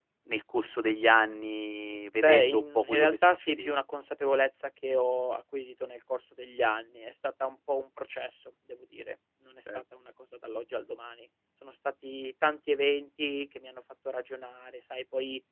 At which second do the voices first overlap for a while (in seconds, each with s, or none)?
2.2 s